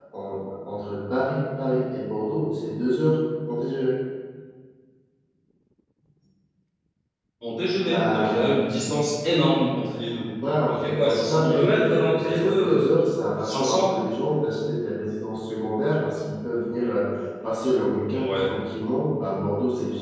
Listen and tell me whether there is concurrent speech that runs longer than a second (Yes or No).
Yes